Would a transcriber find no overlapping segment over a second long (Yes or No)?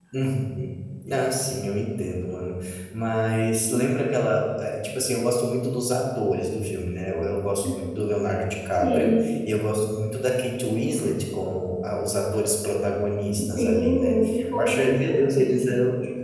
No